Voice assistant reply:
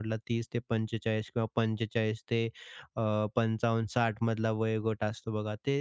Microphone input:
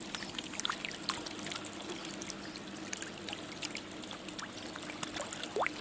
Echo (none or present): none